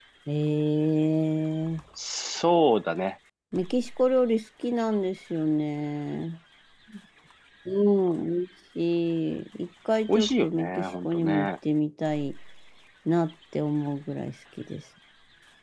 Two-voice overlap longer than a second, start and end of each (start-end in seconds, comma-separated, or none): 10.1-11.5